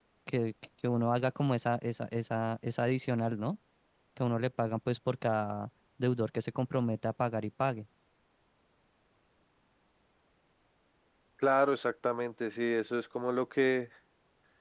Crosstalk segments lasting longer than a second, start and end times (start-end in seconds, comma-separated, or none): none